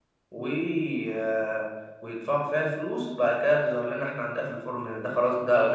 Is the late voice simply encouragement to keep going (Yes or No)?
No